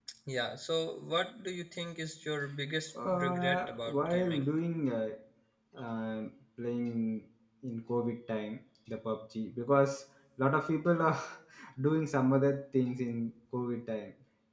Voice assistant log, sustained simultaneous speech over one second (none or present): present